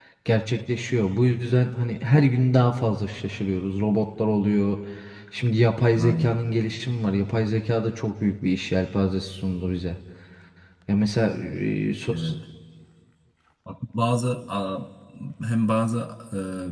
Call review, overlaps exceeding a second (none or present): none